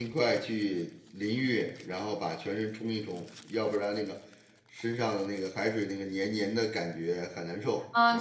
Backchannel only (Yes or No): No